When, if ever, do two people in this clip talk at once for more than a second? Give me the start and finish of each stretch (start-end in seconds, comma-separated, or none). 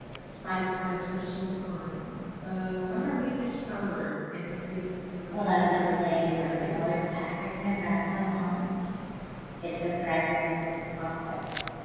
5.4-6.8